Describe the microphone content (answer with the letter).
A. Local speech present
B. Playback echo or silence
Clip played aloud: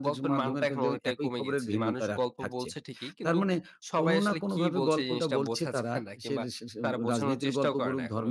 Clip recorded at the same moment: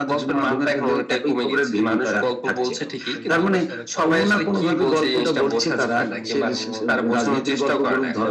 A